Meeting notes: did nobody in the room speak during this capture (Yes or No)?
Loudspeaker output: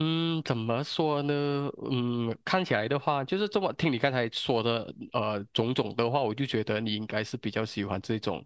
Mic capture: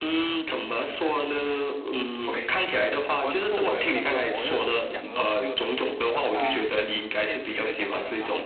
No